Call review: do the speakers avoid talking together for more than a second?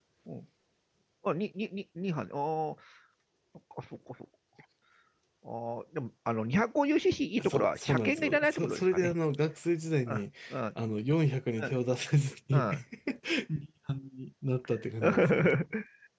No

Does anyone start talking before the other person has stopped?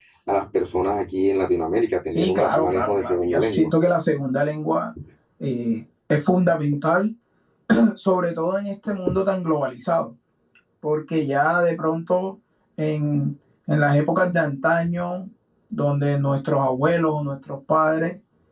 Yes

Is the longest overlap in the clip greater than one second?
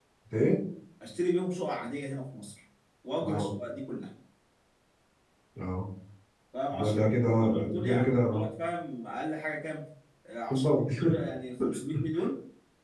Yes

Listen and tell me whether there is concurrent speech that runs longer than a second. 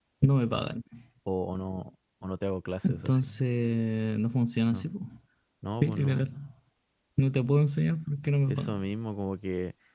No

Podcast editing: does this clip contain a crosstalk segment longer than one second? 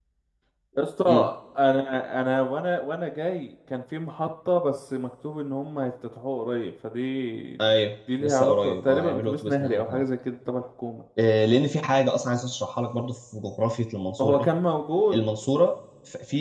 Yes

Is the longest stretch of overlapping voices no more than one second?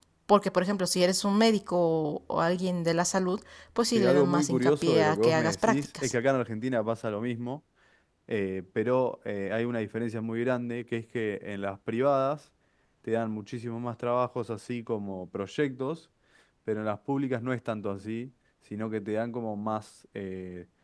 No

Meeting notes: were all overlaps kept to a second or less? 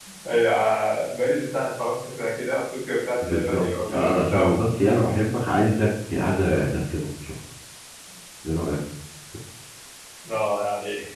No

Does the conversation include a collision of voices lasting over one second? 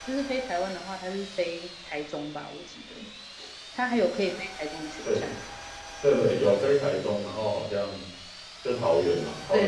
No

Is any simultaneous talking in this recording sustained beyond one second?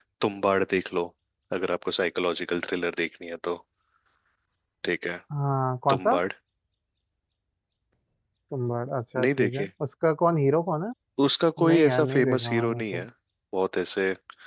Yes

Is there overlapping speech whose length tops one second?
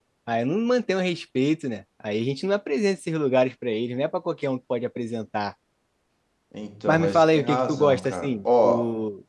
Yes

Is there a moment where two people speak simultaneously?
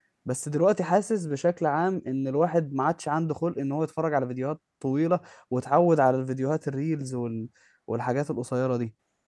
No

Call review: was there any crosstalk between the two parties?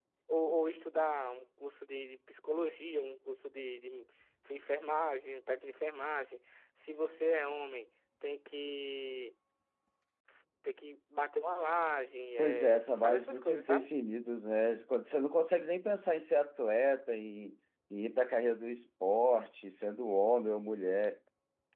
Yes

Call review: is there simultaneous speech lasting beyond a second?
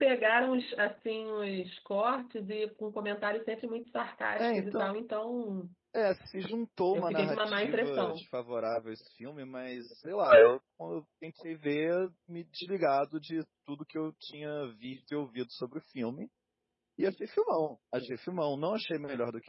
Yes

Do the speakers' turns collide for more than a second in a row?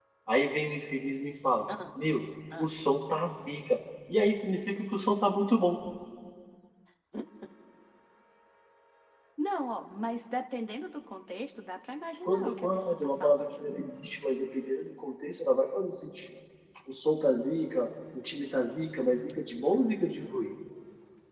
Yes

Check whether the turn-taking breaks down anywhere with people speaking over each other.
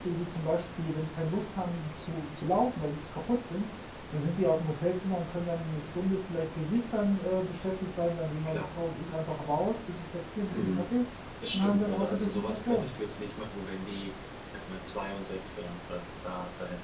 Yes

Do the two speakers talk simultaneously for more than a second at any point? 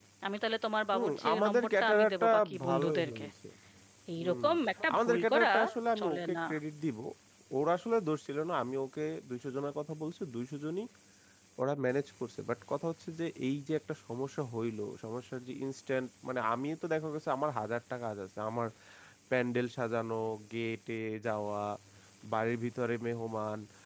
Yes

